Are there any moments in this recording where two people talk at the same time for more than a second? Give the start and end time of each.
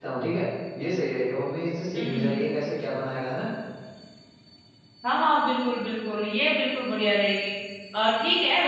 none

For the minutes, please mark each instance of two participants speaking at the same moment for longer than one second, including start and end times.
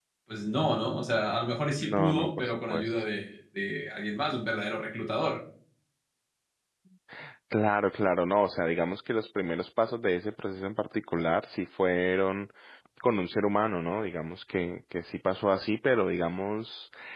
1.8-3.0

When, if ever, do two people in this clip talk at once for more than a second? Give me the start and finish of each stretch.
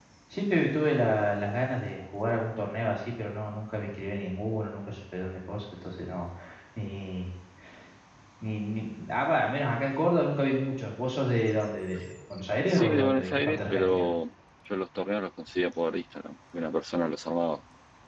12.7-14.0

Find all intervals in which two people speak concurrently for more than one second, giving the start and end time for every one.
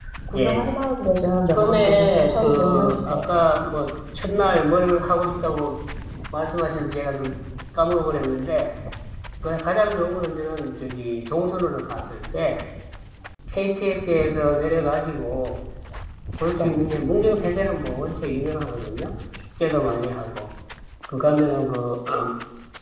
1.6-3.2

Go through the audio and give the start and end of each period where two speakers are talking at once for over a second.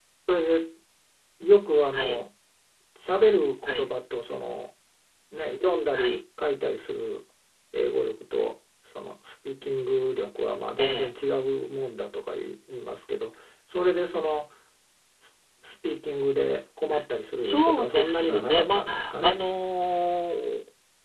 17.4-19.4

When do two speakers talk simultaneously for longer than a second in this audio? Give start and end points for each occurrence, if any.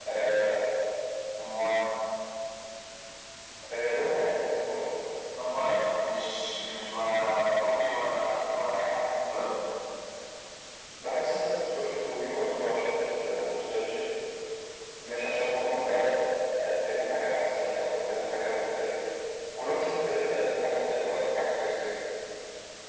none

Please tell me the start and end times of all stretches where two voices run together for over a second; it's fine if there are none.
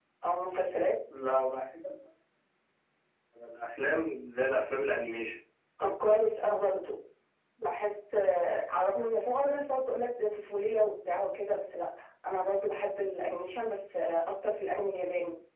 none

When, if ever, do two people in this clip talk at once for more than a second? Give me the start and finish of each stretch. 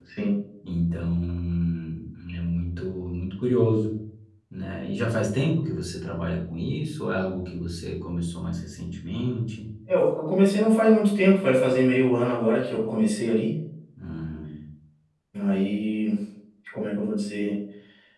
none

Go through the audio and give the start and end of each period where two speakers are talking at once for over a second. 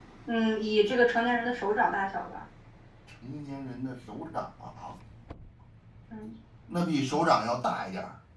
none

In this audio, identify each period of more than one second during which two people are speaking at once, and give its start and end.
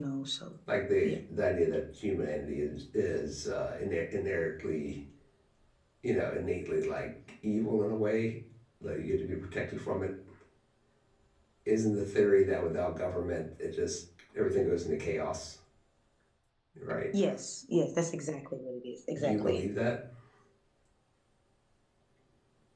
none

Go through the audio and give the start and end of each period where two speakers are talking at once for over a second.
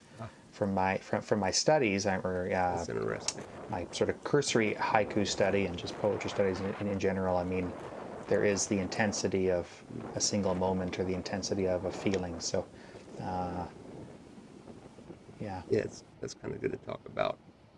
none

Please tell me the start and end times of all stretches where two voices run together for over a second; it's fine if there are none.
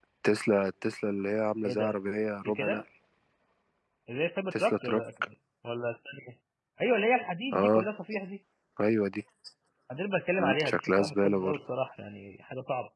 10.4-11.6

